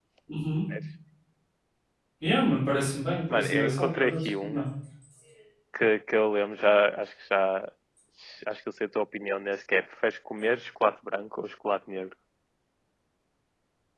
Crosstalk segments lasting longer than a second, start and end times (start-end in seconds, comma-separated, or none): 3.3-4.6